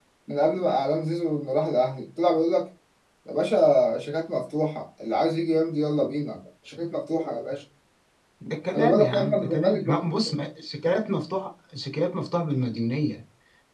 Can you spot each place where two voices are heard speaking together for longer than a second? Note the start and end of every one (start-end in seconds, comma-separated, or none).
8.8-10.0